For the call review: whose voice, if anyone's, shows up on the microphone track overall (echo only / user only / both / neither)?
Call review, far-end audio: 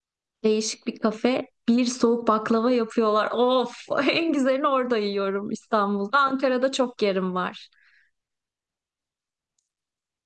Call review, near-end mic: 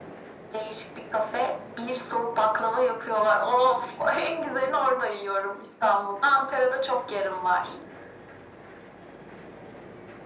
echo only